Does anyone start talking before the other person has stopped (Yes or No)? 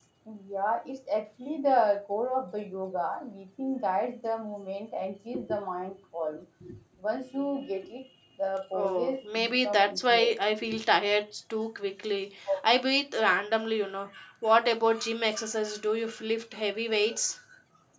Yes